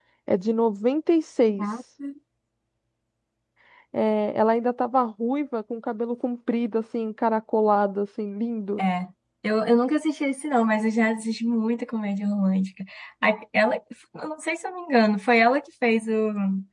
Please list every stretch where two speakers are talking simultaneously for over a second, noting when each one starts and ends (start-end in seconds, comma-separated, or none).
none